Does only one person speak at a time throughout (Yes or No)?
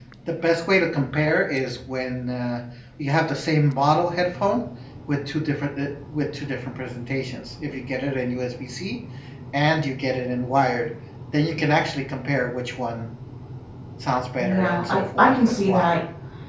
No